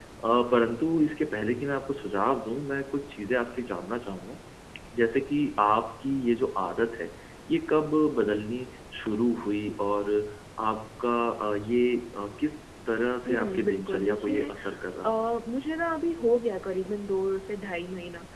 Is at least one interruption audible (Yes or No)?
Yes